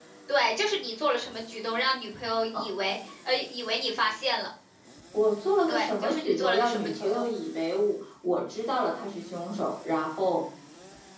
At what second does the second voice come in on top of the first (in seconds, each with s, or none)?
5.7 s